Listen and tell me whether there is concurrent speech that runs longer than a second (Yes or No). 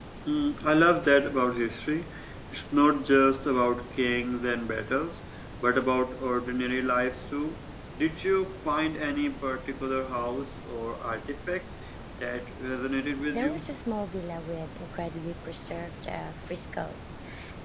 No